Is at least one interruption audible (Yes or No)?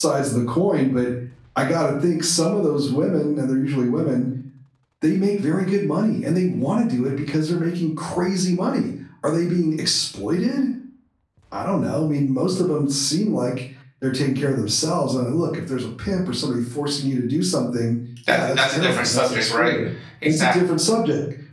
Yes